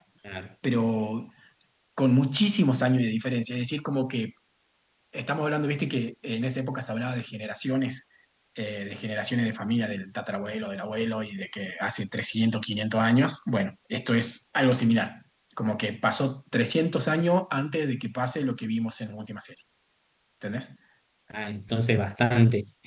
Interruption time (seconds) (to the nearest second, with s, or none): none